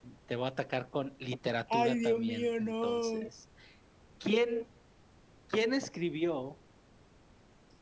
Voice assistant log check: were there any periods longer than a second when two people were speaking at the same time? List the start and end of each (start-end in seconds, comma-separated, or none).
1.7-3.2